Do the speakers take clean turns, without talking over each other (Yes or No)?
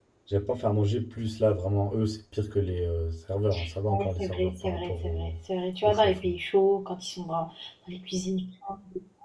No